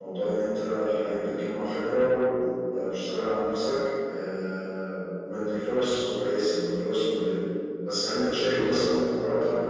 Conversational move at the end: listening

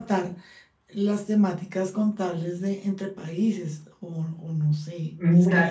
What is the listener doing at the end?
taking over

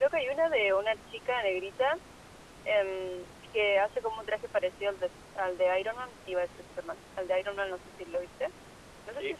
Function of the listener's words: taking over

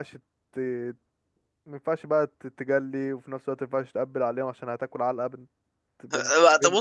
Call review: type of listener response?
taking over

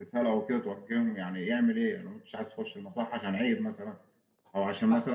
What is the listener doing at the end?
listening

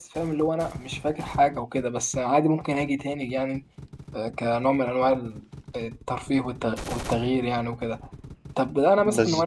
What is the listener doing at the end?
listening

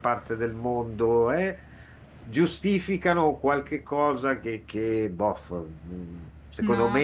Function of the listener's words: listening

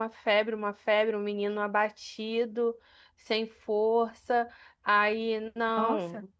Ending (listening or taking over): listening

